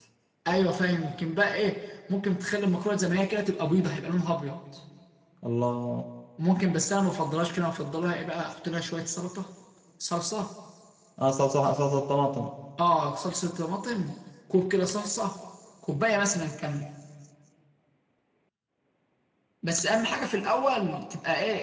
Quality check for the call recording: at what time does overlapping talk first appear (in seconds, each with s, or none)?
none